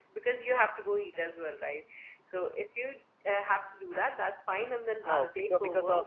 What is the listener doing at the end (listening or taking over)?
taking over